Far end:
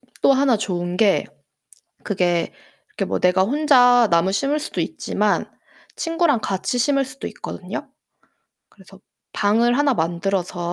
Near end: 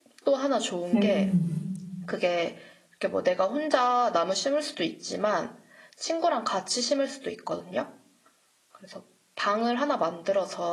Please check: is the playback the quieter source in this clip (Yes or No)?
Yes